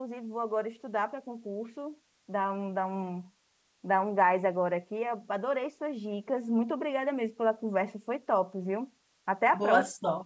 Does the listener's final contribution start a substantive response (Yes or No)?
Yes